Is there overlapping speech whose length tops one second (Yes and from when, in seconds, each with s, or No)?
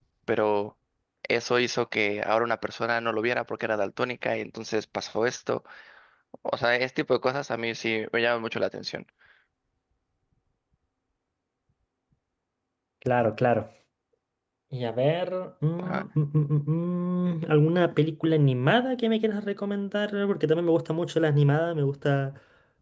No